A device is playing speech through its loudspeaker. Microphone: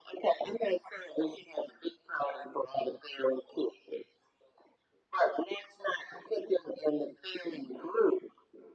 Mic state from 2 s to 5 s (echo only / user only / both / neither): echo only